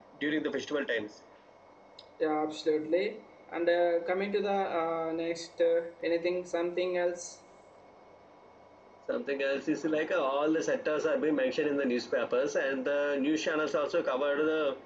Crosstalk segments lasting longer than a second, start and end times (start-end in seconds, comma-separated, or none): none